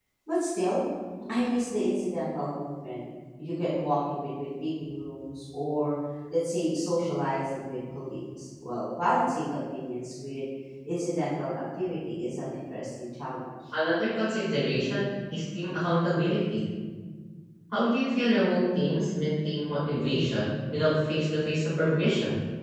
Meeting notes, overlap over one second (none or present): none